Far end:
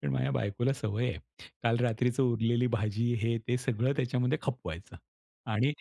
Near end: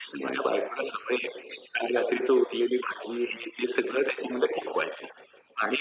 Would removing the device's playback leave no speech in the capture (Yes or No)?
Yes